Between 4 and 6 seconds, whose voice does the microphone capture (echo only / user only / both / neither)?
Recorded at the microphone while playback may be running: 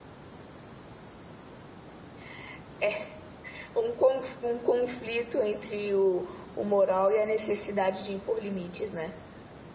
user only